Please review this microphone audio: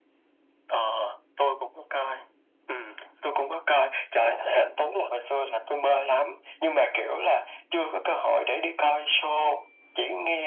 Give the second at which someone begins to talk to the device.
none

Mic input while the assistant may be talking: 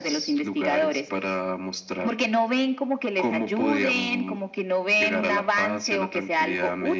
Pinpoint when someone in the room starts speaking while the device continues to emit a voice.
none

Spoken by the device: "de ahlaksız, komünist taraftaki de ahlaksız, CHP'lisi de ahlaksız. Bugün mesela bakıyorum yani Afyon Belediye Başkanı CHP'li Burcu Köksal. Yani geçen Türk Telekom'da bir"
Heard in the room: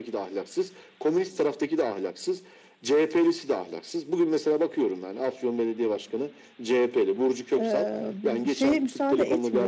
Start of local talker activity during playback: 7.5 s

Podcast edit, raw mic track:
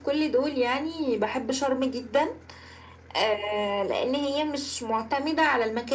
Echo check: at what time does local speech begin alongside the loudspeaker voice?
none

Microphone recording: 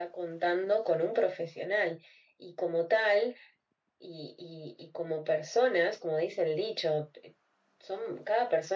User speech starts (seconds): none

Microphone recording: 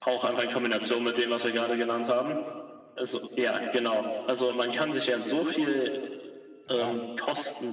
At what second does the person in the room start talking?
6.6 s

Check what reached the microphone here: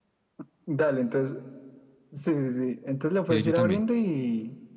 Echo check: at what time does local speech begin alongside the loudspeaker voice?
3.3 s

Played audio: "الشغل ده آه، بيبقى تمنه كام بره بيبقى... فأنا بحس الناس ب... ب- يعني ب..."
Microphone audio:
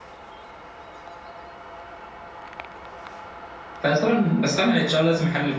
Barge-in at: 3.8 s

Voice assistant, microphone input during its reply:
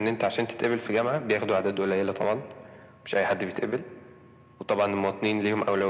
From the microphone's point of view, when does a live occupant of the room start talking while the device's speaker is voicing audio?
none

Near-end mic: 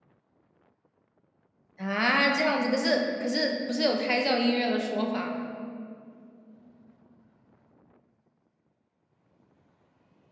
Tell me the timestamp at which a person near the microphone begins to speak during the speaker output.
1.8 s

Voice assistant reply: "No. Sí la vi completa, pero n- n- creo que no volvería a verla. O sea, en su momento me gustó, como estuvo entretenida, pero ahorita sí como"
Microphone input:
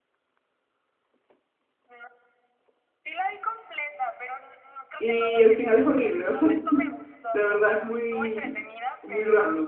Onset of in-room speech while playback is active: 5.0 s

